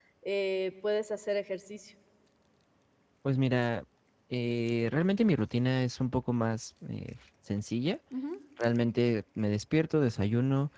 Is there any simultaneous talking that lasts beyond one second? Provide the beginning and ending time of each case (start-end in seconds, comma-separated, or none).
none